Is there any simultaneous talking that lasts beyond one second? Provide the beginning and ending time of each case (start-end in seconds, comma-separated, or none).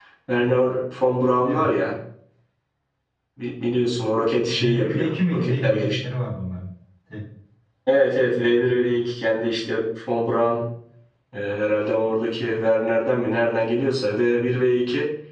4.5-6.0